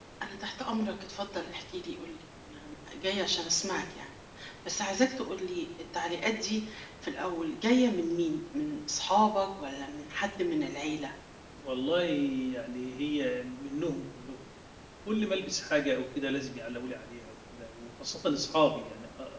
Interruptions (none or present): none